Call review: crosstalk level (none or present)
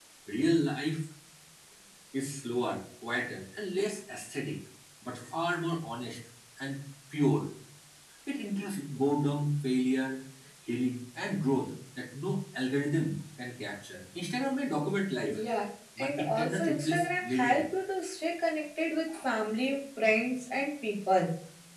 present